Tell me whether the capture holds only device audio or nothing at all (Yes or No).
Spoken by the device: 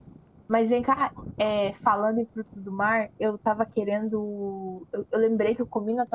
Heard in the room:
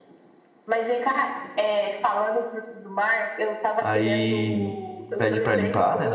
No